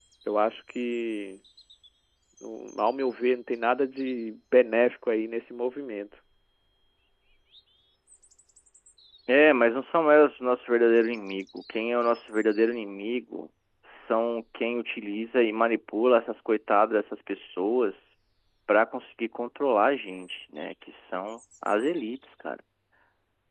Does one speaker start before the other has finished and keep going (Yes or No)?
No